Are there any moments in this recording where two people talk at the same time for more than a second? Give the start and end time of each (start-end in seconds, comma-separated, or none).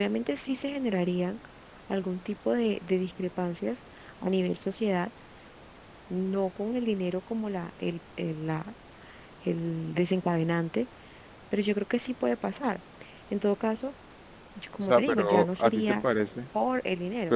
14.8-16.1